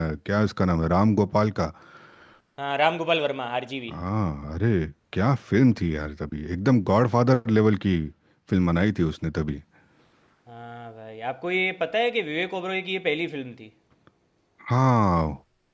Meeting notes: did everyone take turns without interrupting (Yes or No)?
Yes